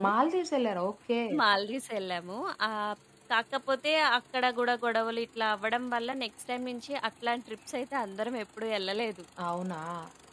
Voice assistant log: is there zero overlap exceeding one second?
Yes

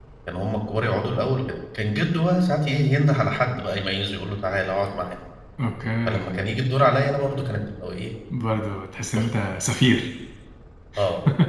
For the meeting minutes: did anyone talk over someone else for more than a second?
No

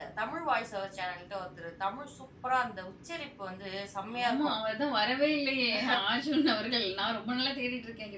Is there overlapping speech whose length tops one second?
No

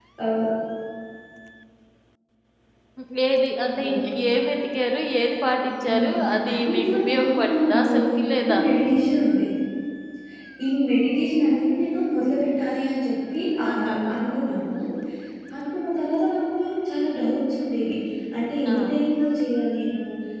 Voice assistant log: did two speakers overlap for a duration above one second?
Yes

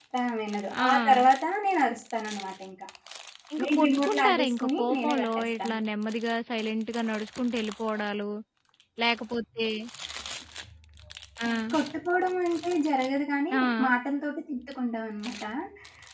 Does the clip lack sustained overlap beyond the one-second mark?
No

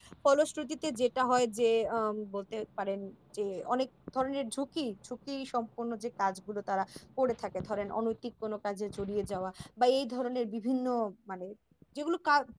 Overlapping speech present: No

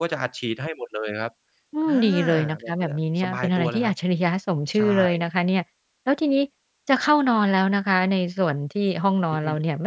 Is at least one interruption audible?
Yes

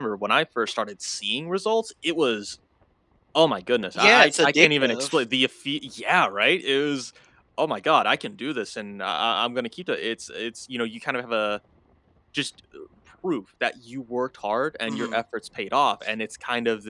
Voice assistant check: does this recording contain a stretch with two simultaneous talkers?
Yes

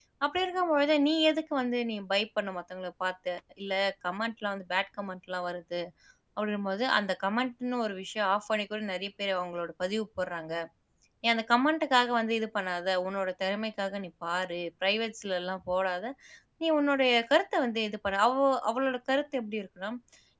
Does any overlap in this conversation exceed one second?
No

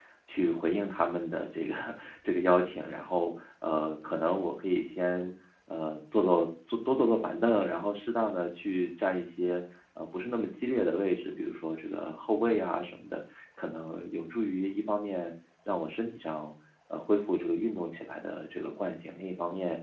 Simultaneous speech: No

